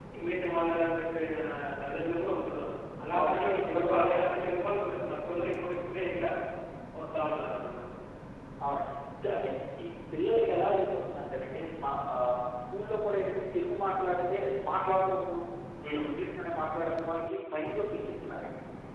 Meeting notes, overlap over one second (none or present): present